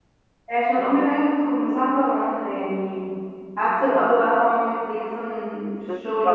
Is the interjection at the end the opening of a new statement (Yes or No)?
No